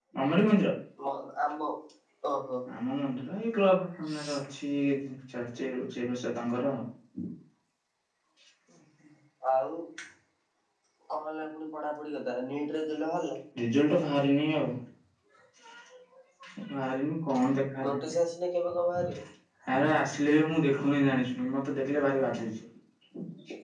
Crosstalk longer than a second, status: none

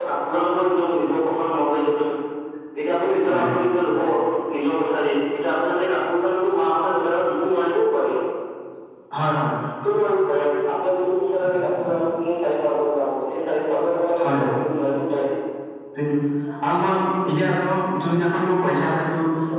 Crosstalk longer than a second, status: none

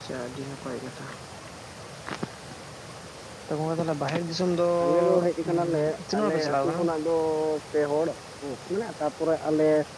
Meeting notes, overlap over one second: present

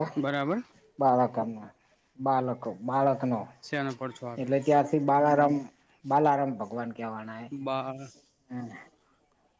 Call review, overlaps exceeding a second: none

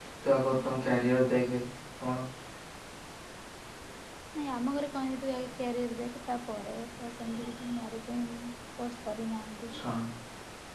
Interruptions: none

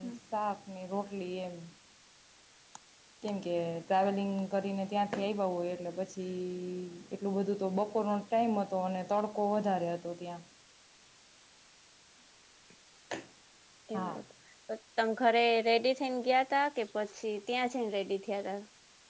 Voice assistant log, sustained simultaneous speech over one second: none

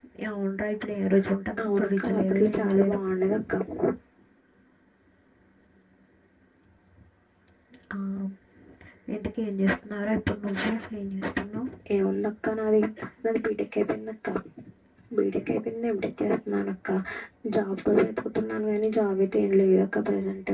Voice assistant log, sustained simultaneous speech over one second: present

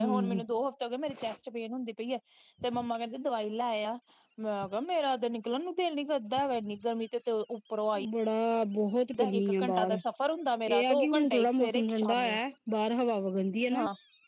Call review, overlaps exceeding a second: present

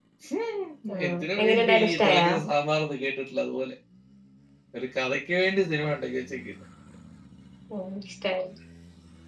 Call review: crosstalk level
present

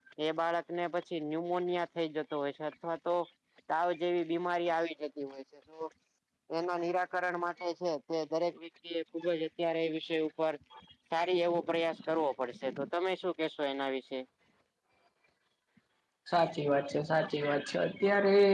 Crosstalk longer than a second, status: none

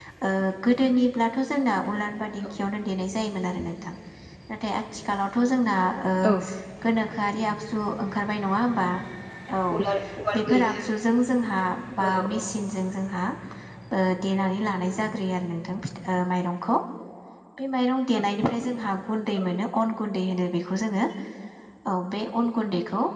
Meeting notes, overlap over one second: none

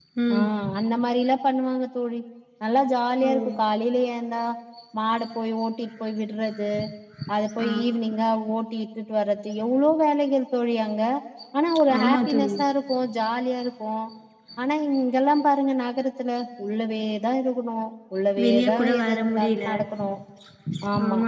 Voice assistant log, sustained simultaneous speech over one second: present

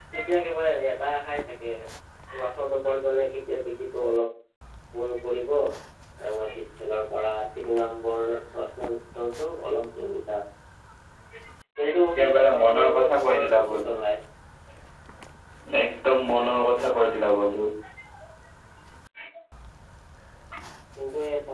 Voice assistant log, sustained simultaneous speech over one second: present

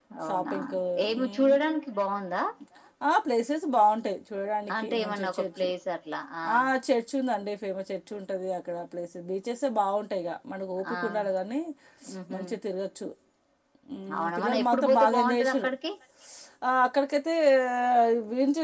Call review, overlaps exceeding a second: present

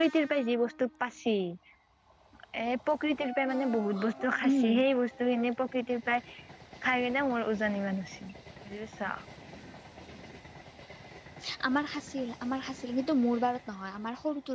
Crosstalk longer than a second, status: none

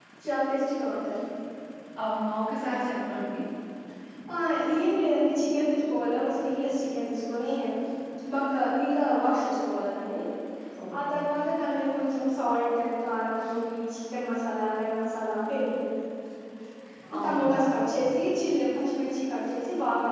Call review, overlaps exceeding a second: none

